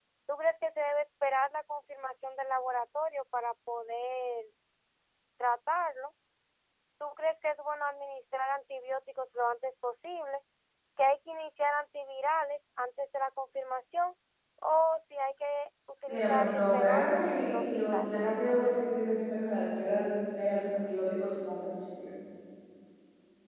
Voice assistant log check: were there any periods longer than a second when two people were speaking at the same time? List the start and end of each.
16.1-18.1

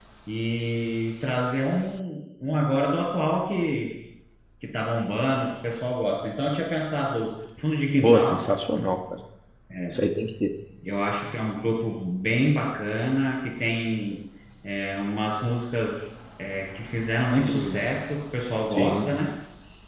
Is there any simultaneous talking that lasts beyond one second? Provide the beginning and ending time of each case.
none

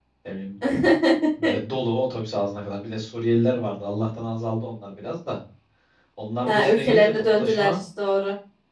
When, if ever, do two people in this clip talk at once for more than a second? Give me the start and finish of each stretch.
6.5-7.8

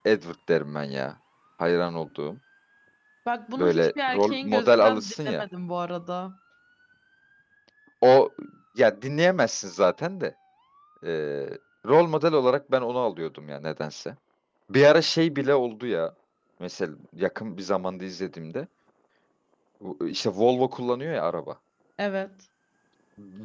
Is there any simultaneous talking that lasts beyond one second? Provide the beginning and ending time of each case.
3.6-5.4

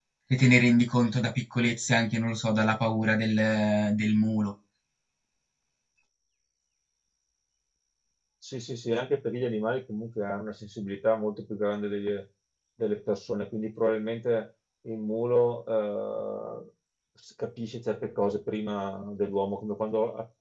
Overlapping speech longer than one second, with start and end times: none

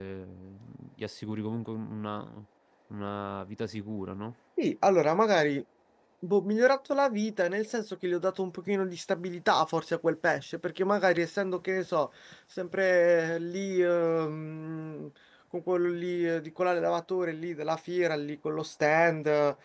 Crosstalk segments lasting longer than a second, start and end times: none

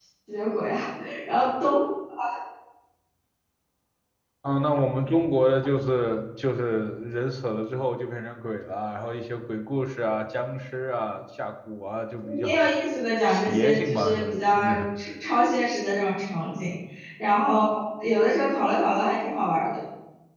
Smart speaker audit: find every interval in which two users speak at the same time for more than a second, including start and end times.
13.2-14.8

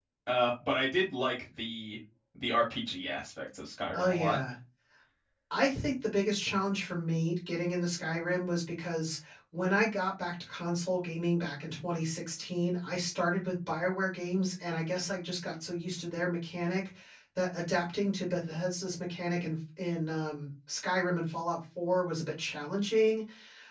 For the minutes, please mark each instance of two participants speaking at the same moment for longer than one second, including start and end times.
none

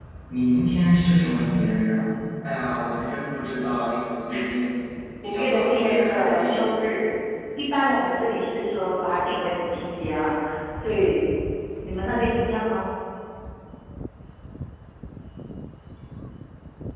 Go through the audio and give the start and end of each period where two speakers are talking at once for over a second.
5.2-6.6

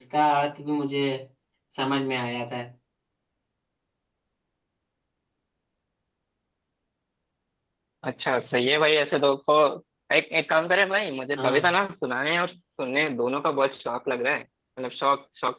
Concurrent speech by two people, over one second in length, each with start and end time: none

